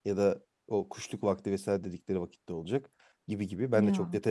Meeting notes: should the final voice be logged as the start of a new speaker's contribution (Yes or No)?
No